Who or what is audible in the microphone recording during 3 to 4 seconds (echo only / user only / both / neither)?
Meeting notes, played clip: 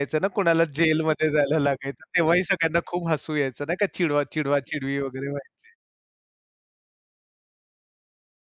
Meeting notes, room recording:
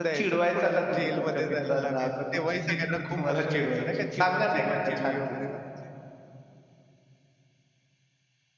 both